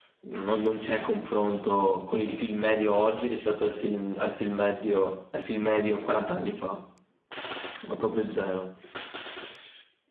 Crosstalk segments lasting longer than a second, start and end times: none

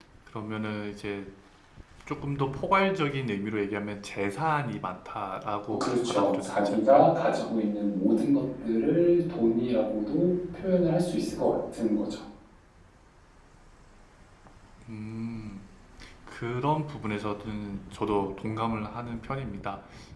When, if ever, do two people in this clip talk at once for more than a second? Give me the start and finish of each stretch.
5.7-7.1

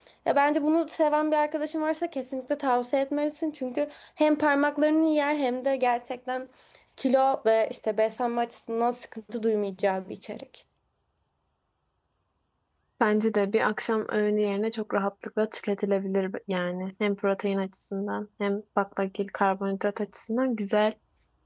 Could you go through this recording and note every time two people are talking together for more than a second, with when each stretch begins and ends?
none

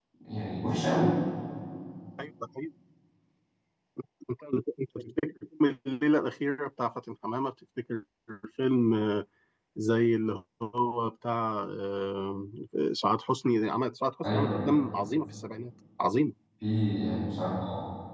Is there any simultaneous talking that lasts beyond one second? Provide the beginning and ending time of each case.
none

